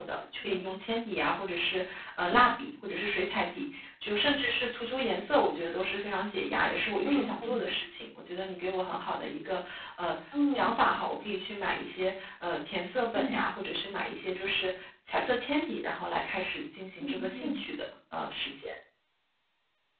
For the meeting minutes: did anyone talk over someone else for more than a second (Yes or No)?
No